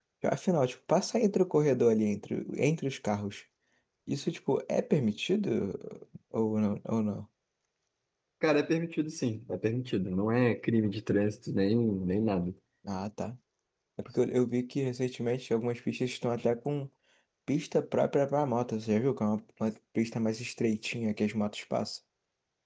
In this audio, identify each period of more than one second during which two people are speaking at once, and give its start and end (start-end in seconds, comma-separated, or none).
none